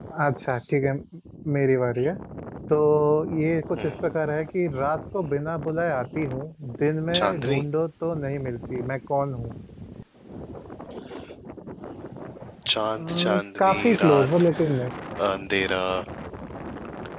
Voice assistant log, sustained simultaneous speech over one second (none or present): present